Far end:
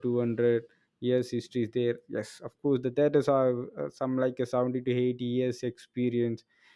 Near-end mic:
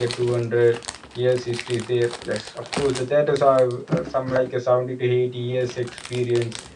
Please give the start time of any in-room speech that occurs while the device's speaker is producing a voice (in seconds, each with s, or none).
none